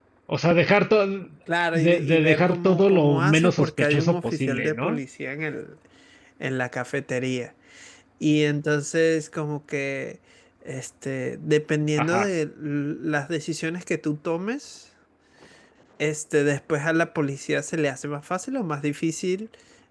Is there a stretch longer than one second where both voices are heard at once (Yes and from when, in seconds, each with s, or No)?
Yes, from 1.7 s